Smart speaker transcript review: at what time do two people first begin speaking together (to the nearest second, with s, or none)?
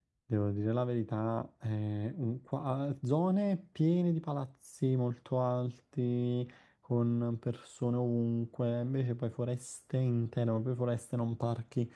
none